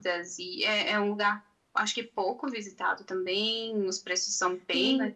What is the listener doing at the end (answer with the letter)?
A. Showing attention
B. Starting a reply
B